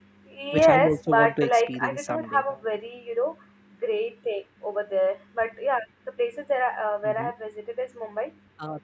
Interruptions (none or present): present